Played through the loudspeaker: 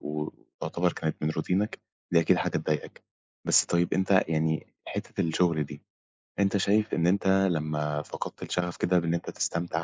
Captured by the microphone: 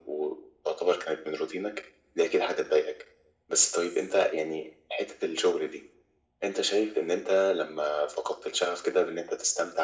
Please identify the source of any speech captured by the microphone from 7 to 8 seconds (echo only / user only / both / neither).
echo only